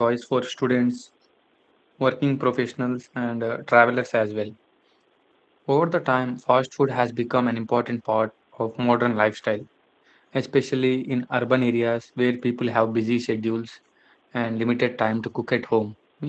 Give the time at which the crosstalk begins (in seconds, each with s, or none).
none